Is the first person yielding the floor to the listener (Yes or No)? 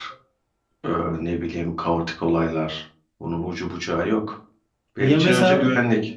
No